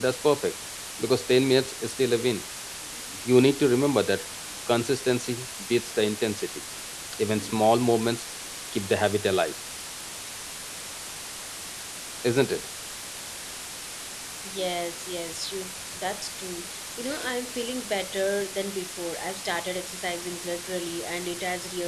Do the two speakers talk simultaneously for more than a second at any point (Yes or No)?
No